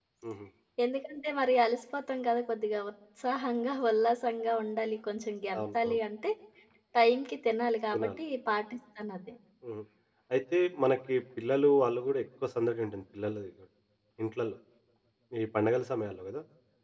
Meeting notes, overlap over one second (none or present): none